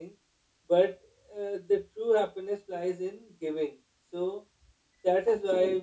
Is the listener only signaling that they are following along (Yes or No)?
Yes